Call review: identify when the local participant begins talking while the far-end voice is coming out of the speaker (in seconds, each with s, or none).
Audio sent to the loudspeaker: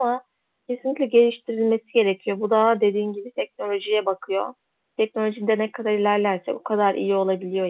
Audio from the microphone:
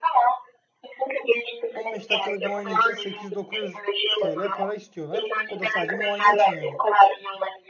1.7 s